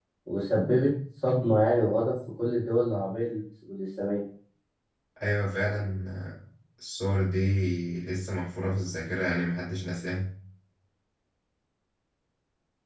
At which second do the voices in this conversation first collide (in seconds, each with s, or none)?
none